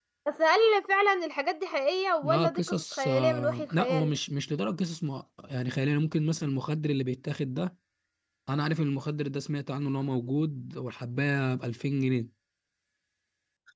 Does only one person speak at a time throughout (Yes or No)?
No